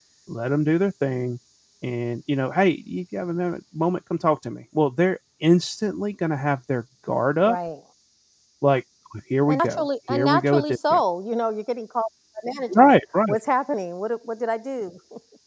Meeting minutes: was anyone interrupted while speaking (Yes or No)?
Yes